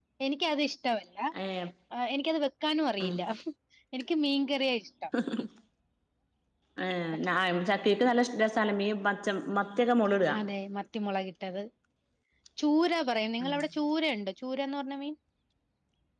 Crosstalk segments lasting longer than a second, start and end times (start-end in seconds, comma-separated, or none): none